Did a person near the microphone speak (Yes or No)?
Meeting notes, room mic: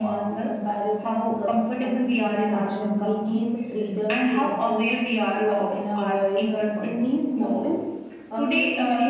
No